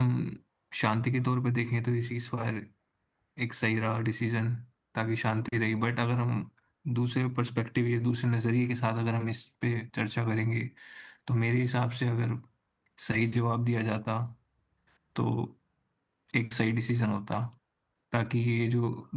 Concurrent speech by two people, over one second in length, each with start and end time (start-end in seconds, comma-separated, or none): none